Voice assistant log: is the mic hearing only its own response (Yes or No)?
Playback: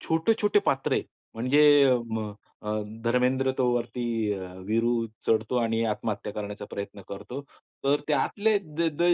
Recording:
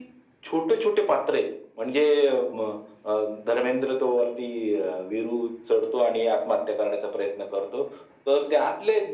Yes